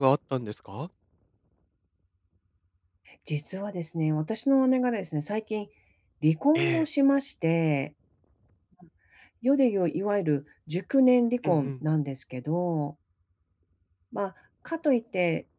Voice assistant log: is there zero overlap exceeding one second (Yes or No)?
Yes